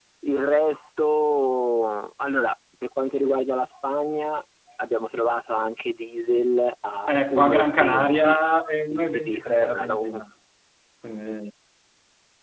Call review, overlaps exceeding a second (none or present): present